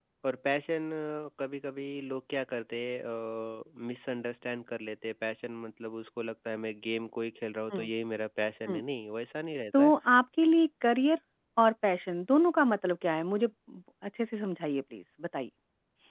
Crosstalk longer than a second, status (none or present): none